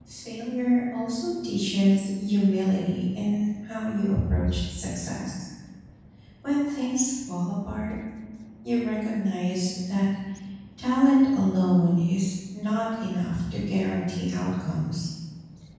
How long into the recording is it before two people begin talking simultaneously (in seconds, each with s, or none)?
none